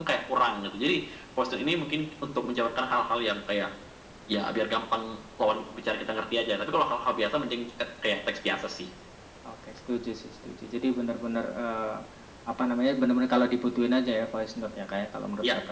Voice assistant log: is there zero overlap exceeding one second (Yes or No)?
Yes